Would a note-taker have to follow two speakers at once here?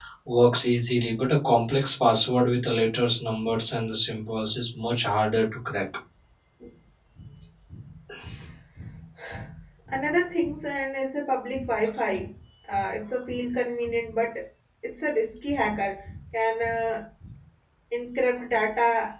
No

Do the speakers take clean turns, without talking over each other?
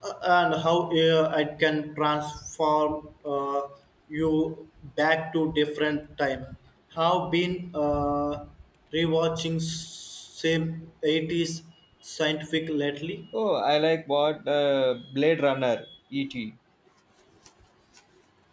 Yes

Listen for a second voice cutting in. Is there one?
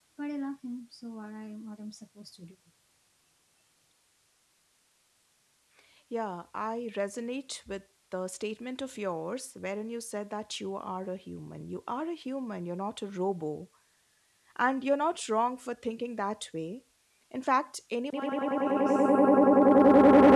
No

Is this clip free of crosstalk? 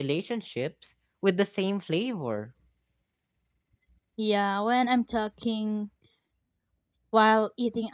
Yes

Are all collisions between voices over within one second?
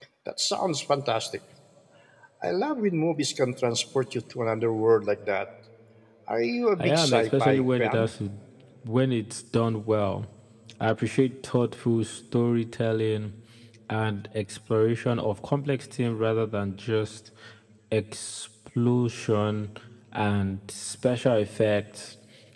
No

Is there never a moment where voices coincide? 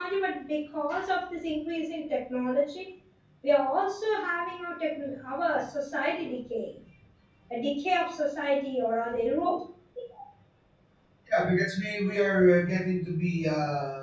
Yes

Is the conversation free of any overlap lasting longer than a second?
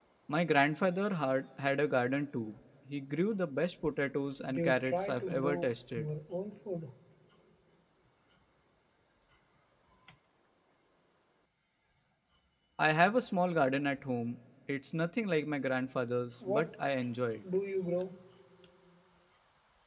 No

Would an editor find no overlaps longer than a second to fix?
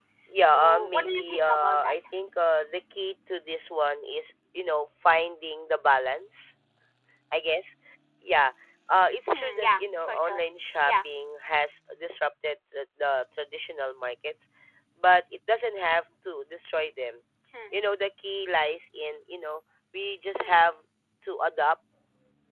No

